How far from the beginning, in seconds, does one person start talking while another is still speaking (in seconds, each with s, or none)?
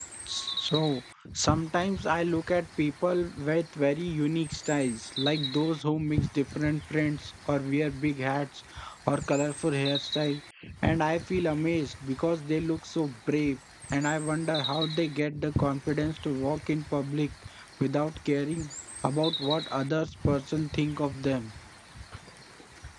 none